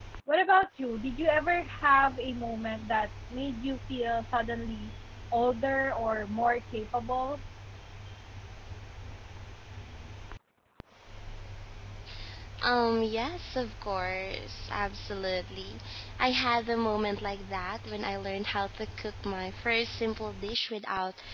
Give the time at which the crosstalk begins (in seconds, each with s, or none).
none